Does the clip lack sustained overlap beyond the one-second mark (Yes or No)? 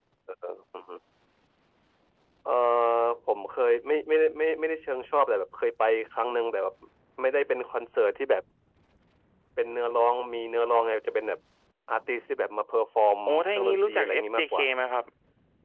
No